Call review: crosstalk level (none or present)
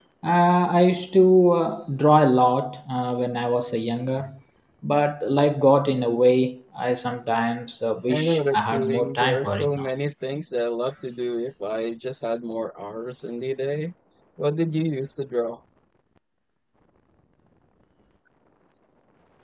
present